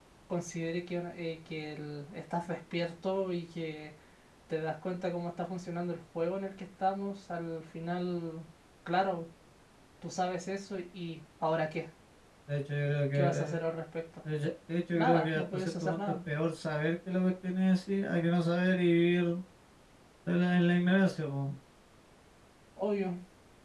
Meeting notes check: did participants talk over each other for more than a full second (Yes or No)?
Yes